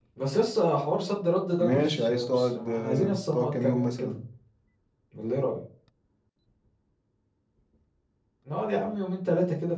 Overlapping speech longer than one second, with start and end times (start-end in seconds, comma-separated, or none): 1.6-4.2